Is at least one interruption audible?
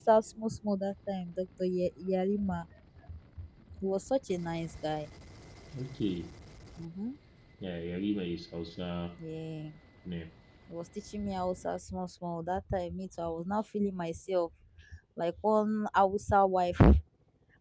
No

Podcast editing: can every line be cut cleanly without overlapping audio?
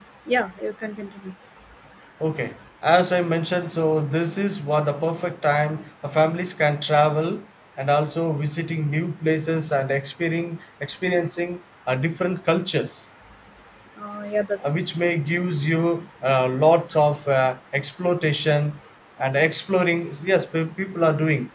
Yes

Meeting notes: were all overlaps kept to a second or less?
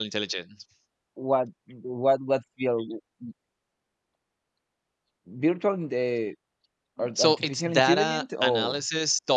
No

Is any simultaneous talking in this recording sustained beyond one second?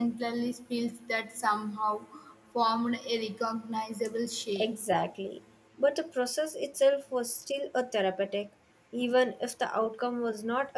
No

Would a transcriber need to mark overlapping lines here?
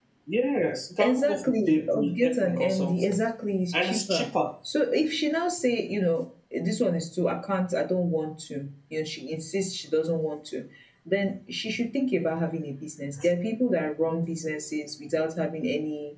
Yes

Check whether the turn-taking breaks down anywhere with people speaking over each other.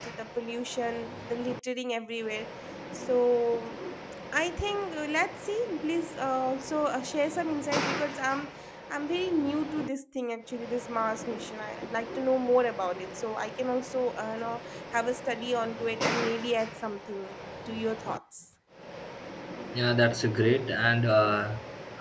No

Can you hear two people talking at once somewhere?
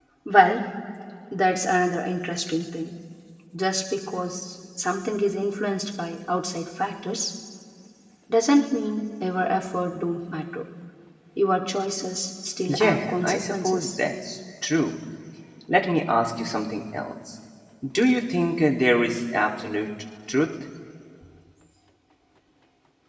Yes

